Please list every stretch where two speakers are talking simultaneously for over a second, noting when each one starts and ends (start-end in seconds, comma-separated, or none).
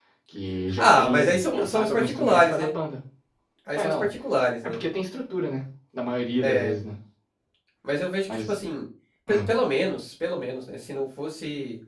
0.8-2.7